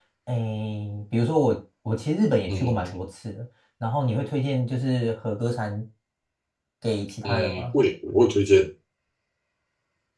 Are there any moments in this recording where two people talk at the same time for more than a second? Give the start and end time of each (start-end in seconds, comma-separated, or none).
none